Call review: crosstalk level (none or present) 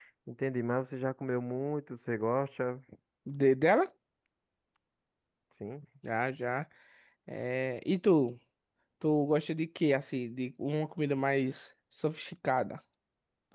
none